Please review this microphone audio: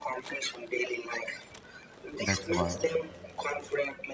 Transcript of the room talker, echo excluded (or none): that's why